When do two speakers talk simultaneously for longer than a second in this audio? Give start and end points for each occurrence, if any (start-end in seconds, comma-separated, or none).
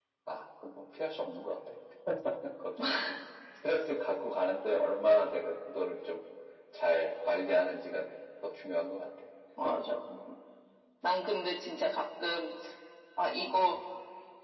none